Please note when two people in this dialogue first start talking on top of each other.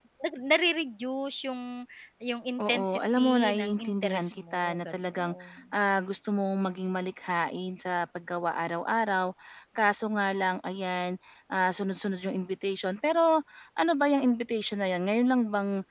2.6 s

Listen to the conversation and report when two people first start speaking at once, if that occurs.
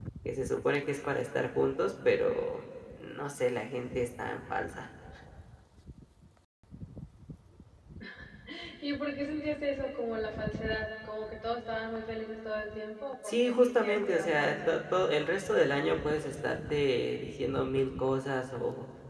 13.2 s

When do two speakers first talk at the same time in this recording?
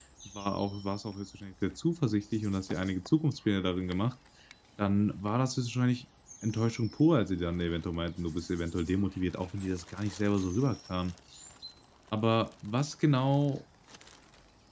none

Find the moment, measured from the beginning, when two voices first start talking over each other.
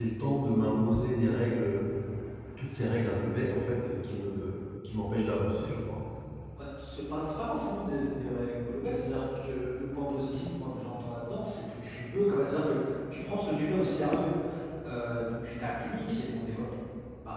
none

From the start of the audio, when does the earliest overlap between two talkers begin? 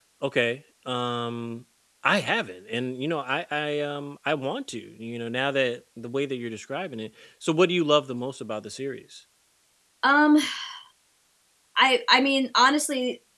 none

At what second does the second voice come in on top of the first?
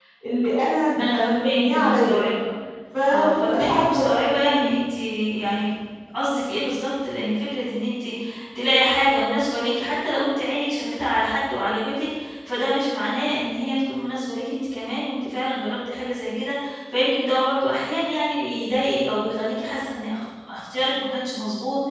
1.0 s

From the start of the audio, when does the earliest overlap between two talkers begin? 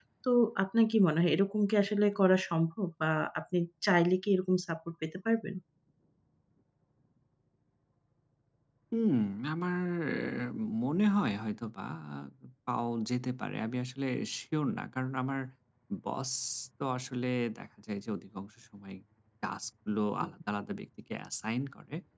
none

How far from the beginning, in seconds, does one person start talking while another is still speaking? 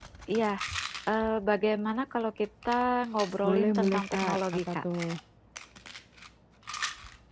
3.4 s

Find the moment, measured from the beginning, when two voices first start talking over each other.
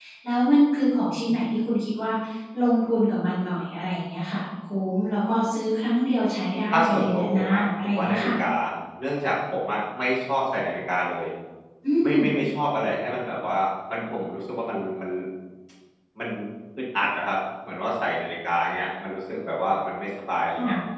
6.7 s

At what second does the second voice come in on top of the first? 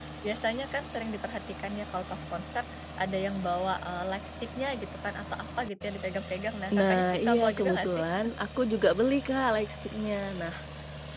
6.7 s

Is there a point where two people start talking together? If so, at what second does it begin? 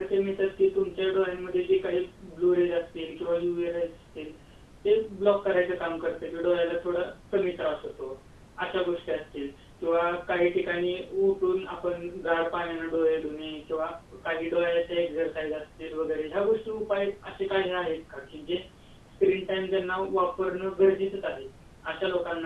none

